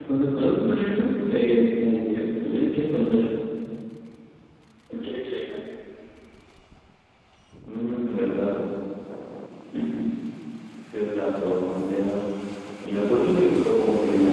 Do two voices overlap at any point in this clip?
No

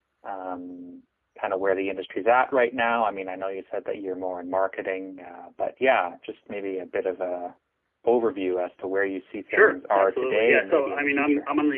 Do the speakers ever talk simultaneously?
Yes, from 9.5 s

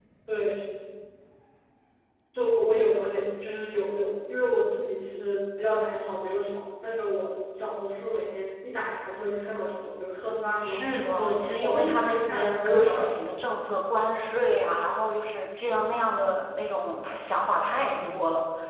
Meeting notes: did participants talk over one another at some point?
Yes, from 10.6 s

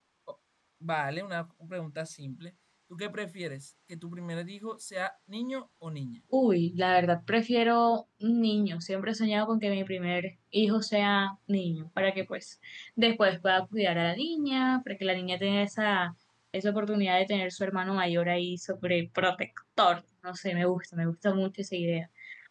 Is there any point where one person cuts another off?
No

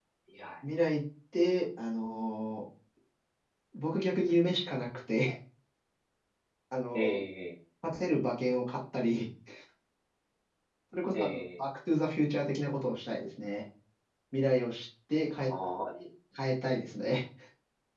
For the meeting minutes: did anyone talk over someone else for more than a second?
No

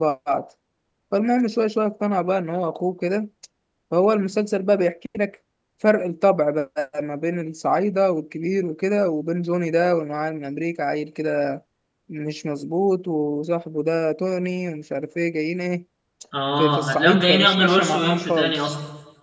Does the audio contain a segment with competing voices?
Yes, from 16.6 s

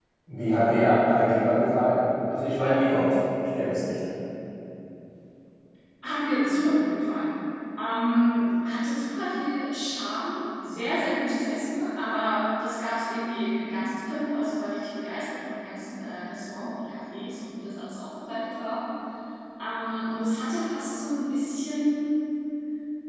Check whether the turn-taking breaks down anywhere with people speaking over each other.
No

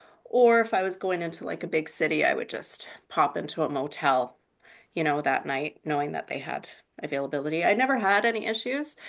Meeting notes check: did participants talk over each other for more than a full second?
No

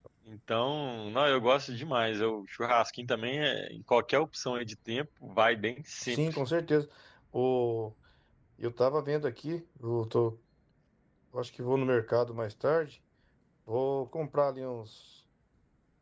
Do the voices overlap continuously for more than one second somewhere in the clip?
No

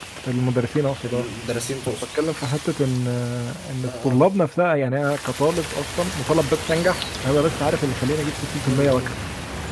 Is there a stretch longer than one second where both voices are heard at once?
No

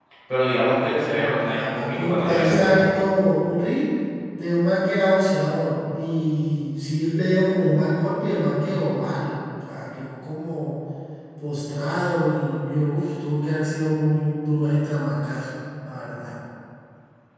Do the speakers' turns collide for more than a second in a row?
Yes, from 1.1 s

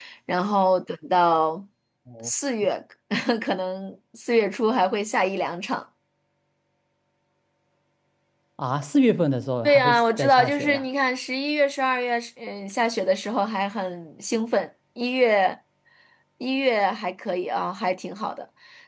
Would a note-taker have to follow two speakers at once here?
Yes, from 9.6 s

